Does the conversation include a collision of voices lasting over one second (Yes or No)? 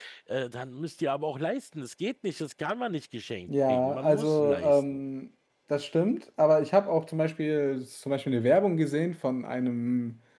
Yes